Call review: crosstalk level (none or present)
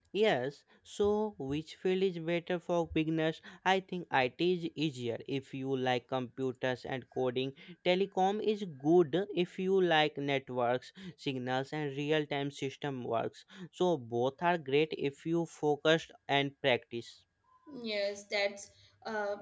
none